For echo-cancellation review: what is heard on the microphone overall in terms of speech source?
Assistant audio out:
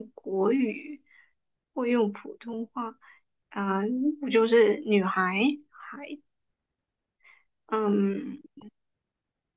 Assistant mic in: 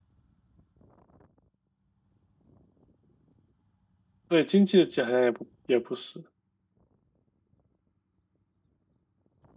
user only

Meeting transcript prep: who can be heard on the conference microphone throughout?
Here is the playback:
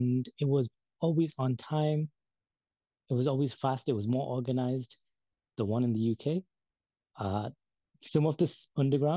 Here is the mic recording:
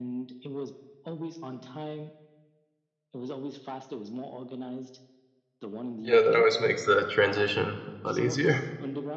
both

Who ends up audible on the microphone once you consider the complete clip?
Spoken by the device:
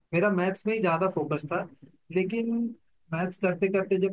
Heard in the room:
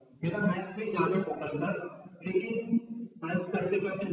echo only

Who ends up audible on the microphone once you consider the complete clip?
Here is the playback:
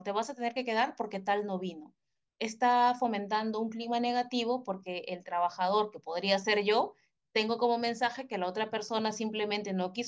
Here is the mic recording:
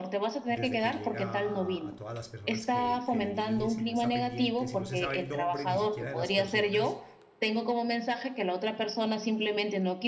both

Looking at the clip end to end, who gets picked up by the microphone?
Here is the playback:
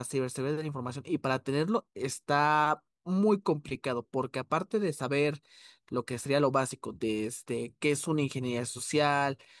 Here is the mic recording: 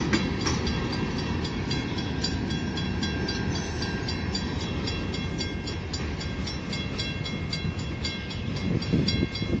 neither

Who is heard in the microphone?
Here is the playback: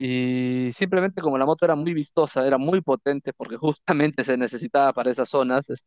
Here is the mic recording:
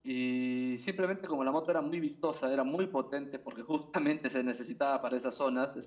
echo only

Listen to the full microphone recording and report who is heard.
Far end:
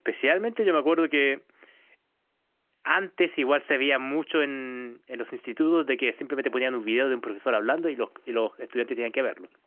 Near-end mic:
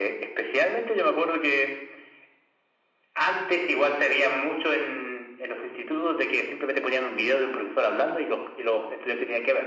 echo only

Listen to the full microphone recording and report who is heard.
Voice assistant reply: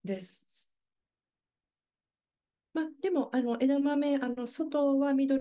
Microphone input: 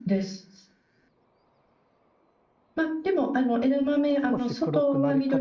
both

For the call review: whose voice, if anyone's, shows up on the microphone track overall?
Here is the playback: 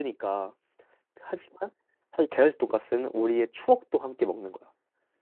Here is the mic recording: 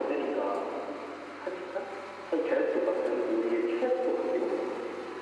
echo only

